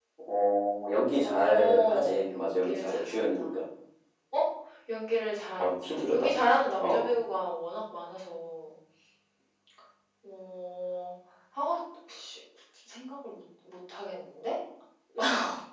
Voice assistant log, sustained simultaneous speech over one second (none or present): present